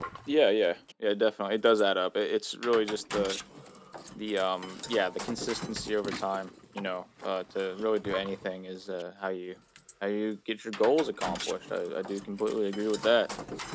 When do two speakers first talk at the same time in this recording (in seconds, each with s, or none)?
none